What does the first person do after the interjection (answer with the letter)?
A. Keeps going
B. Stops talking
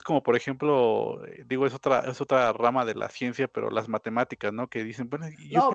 A